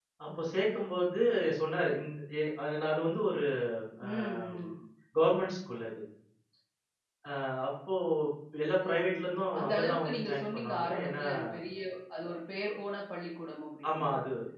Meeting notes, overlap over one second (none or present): present